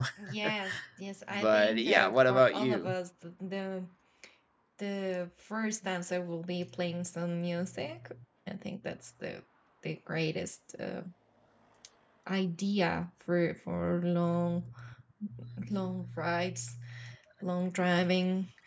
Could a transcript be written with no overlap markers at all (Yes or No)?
No